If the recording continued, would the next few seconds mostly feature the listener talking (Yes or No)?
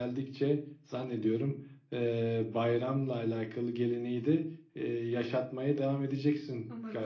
Yes